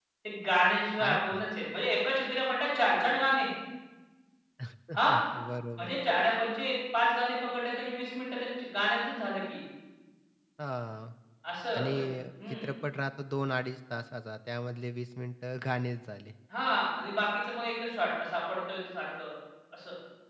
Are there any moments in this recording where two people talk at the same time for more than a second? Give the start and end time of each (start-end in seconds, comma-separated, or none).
none